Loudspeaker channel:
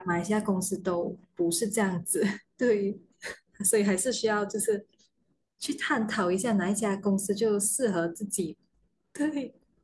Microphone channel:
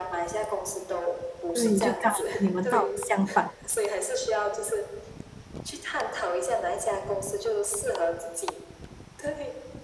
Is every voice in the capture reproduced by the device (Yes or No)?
No